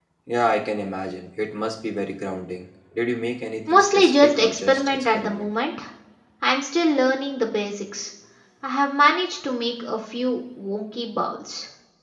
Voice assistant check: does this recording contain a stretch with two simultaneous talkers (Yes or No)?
Yes